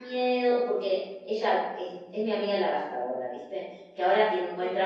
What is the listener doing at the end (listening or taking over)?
listening